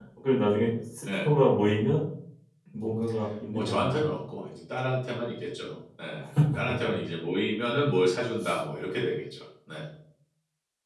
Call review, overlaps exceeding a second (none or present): none